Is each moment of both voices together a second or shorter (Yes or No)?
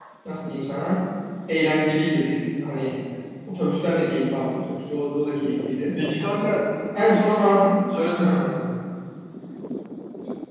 Yes